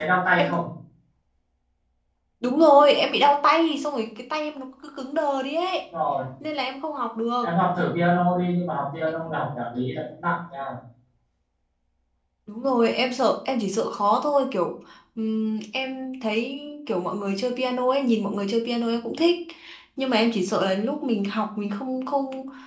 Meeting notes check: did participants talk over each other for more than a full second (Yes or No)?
No